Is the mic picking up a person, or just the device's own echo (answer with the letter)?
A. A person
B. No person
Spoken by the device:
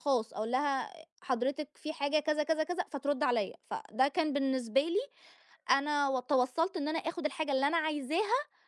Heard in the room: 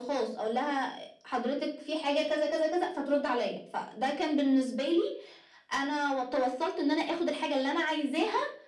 B